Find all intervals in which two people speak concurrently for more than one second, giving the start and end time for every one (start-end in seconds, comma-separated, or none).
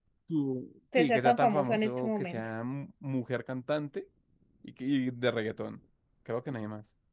1.0-2.5